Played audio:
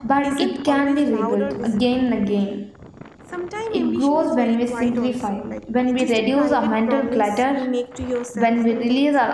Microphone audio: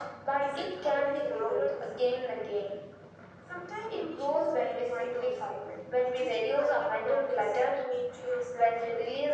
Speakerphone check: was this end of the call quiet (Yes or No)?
Yes